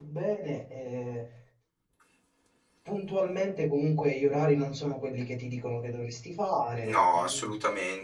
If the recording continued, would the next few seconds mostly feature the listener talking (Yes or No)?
Yes